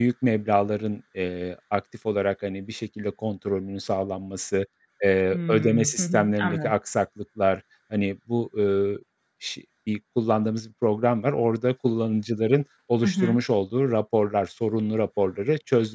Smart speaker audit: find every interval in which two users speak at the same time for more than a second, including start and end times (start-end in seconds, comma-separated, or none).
5.3-6.7